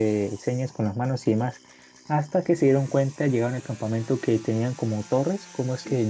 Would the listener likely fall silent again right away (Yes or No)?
Yes